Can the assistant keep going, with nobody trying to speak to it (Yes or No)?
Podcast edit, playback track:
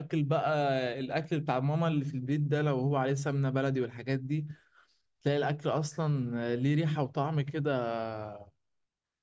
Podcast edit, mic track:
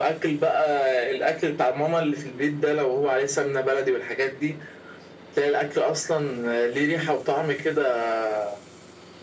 Yes